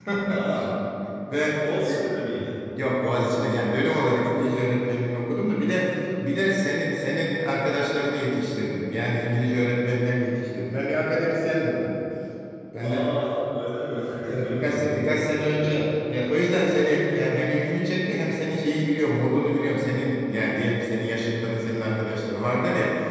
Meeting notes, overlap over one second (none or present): present